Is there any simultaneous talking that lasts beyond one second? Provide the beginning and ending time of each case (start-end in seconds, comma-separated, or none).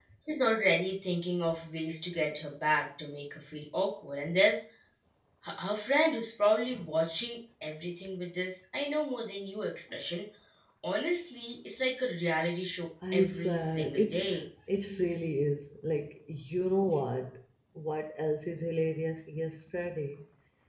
13.1-14.4